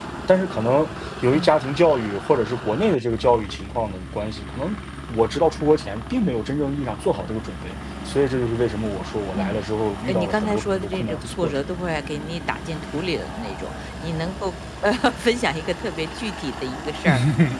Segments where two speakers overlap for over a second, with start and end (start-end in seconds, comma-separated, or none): 10.1-11.6